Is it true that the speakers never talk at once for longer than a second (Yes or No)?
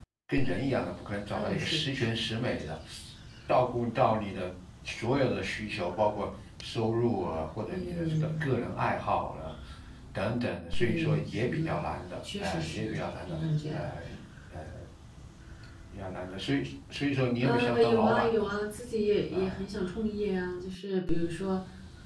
No